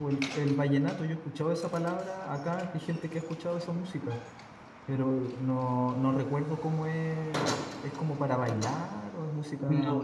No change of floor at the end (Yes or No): No